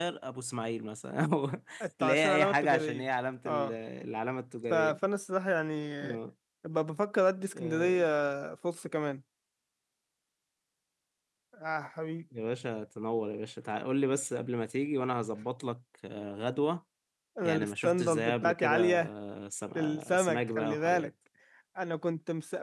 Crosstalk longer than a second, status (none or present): present